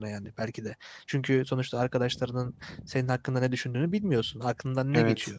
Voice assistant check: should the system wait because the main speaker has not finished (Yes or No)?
Yes